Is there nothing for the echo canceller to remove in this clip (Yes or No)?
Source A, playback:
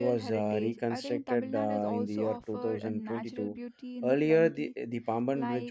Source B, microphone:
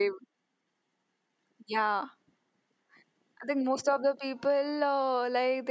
Yes